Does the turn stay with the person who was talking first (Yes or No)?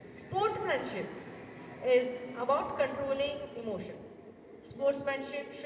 Yes